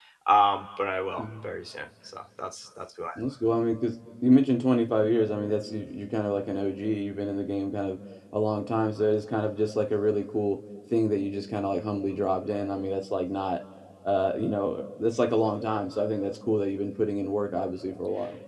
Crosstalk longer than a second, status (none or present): none